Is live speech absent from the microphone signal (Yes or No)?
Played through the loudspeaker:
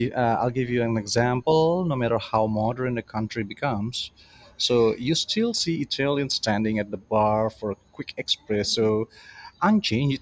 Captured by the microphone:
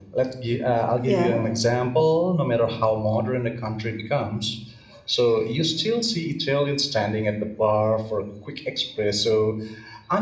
No